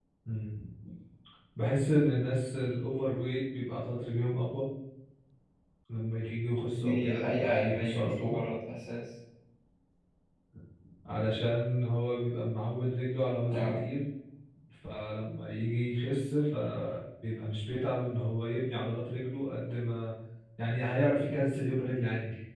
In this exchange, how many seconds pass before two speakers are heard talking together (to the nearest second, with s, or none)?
7 s